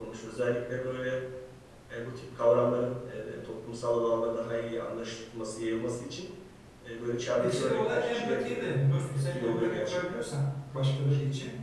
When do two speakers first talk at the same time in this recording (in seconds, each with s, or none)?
7.4 s